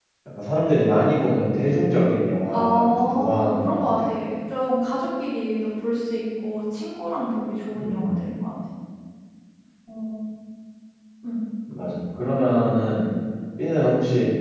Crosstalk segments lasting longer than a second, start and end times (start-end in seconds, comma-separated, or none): 2.5-4.1